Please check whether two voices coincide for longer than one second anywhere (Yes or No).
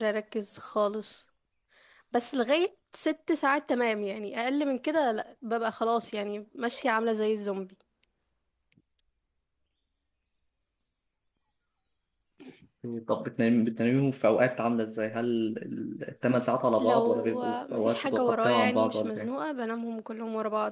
Yes